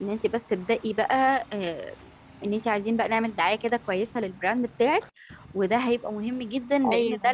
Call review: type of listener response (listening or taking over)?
listening